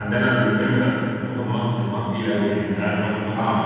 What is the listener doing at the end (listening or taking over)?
taking over